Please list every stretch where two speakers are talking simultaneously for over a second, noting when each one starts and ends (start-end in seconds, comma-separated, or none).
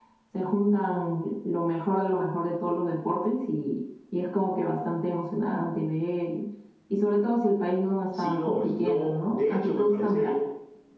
8.2-10.4